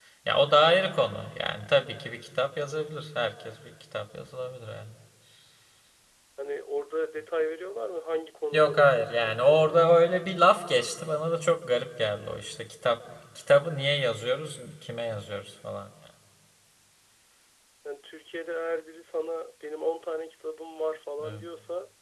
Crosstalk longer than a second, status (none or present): present